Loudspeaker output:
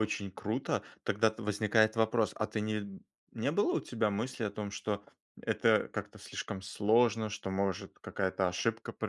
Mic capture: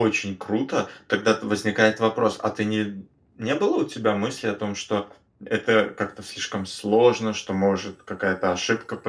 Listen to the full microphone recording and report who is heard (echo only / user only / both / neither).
echo only